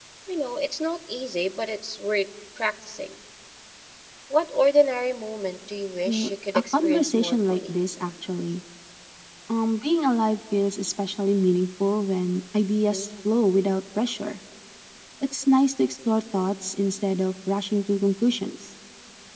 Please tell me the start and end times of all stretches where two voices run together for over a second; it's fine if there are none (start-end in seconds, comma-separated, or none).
6.0-7.7